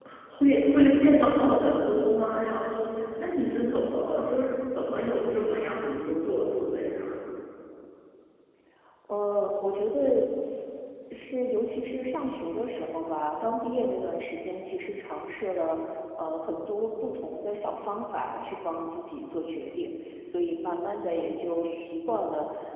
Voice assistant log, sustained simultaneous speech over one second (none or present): none